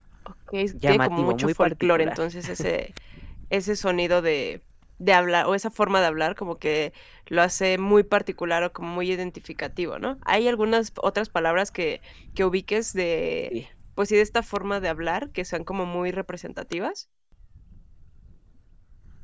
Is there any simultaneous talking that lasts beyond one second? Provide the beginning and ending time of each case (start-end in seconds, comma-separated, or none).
0.9-2.2